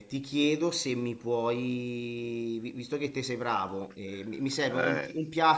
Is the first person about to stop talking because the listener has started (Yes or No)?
No